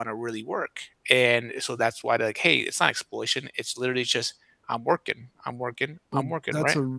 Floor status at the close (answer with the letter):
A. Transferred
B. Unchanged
A